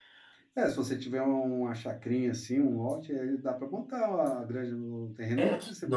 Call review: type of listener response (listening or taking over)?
taking over